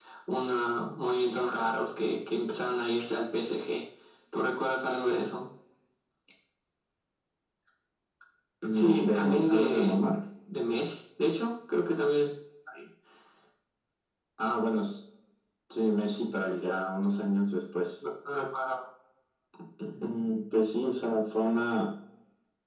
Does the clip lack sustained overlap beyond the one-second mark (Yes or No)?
No